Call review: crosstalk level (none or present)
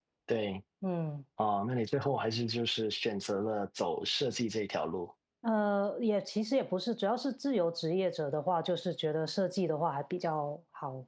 none